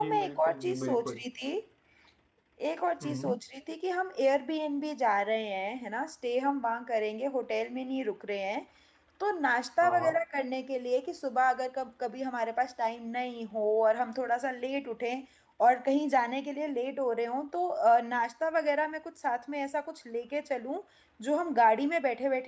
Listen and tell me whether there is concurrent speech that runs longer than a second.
Yes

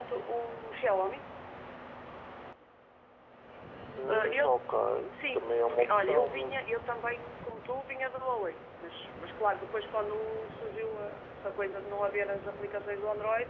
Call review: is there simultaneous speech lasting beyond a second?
Yes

